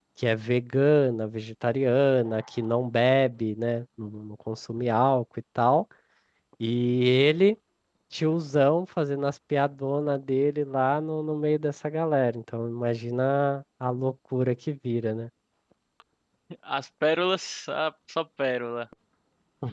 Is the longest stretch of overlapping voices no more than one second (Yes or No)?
Yes